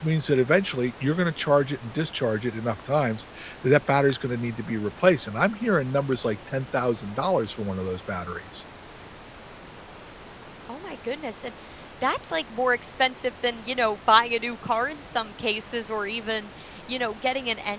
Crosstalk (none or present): none